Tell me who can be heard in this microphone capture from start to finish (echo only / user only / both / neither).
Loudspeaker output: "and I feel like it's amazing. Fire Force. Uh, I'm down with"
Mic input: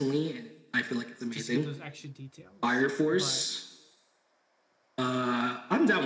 both